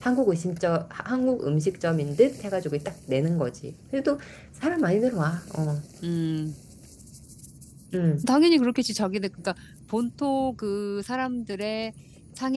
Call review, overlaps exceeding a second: none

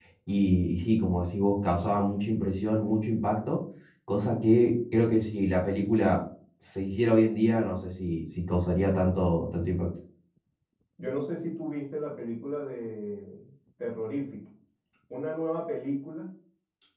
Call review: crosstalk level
none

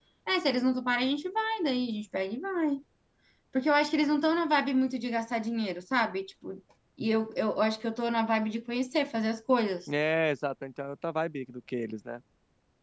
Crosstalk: none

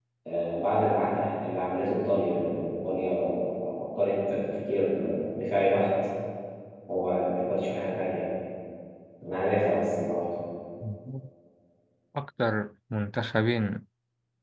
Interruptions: none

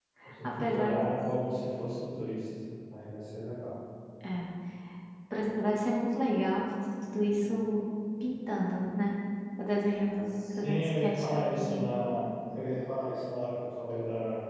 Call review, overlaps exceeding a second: present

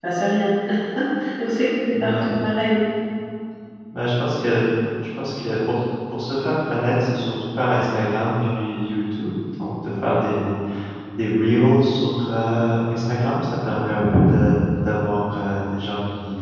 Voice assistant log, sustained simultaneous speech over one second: none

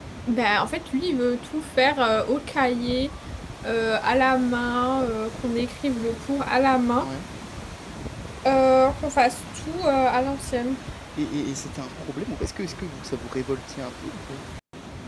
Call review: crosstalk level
none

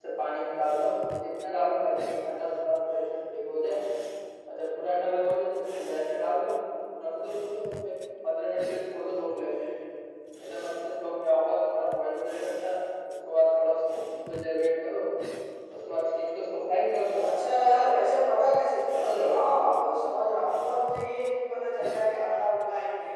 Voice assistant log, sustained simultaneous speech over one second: none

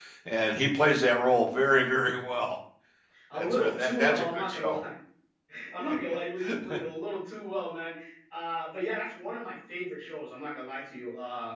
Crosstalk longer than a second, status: present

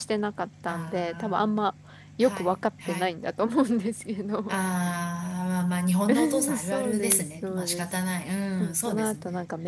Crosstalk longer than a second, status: present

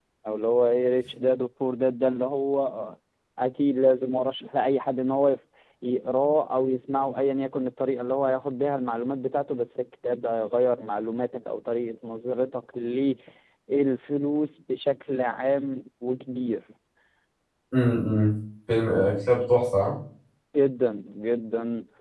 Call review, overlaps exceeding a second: none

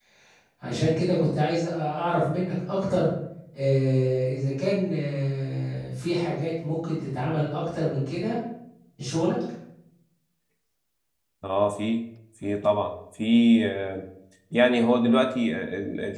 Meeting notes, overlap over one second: none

